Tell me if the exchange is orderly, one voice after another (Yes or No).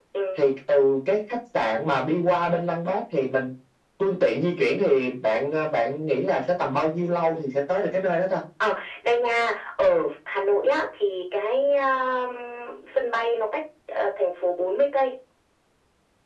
Yes